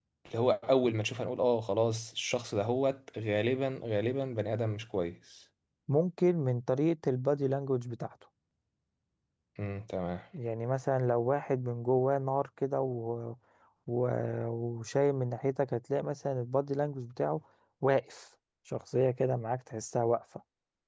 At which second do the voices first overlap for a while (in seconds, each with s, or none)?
none